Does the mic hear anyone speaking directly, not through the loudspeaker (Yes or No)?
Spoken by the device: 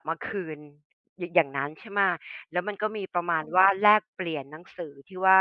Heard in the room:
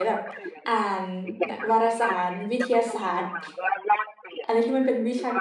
Yes